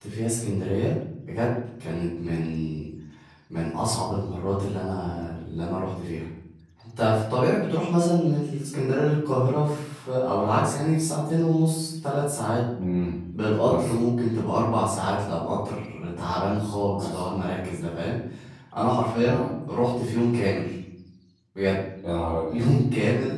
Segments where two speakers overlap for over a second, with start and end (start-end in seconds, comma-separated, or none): none